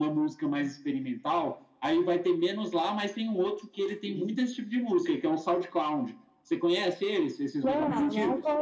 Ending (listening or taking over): taking over